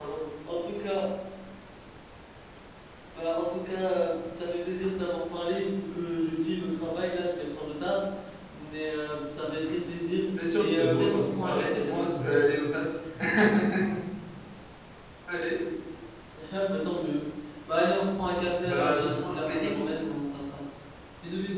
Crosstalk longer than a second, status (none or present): present